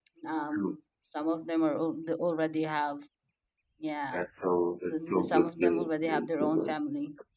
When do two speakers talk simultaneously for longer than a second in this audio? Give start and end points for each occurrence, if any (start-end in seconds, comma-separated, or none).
4.9-6.8